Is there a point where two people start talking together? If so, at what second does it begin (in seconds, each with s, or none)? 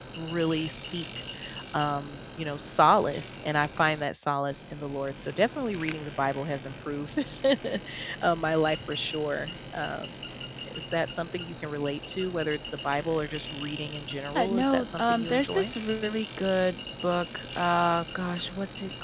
14.3 s